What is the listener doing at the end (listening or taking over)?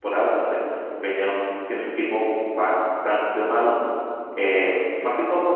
listening